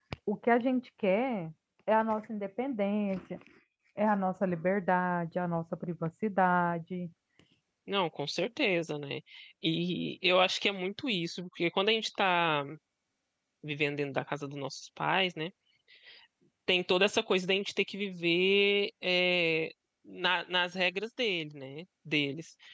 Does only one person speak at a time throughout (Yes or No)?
Yes